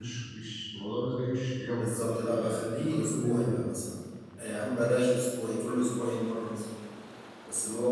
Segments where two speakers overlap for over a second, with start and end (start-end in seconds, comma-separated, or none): 1.6-3.6